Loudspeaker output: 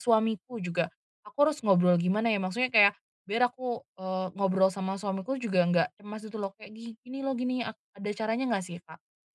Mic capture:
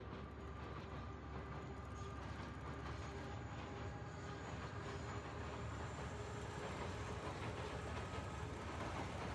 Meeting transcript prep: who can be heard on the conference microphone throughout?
neither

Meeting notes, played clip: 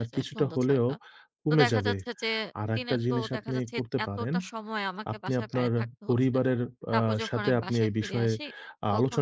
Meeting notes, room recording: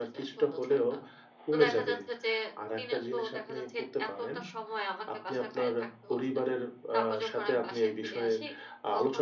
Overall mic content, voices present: echo only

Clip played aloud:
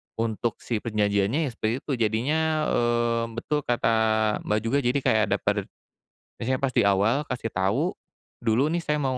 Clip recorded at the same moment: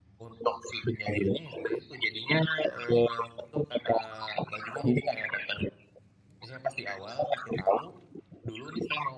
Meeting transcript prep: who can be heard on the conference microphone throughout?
echo only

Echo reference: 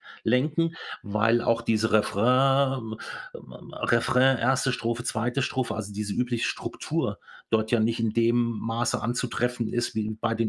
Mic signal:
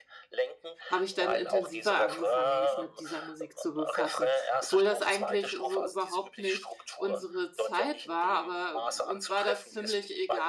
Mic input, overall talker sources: both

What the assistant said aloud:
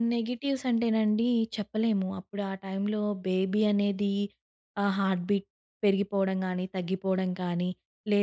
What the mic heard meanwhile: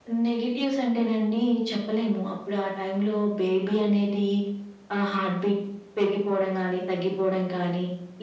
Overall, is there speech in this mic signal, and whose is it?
echo only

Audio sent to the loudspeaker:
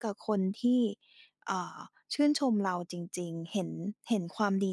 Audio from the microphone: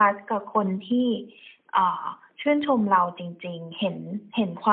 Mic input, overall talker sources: echo only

